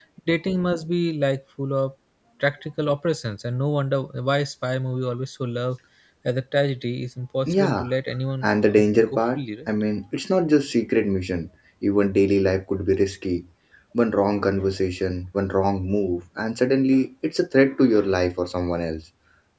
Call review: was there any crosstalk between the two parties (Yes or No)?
Yes